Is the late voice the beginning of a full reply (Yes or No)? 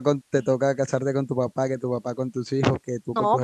Yes